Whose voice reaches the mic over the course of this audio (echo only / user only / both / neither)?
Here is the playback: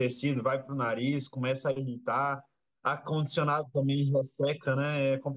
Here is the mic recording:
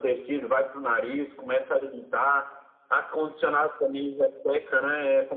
echo only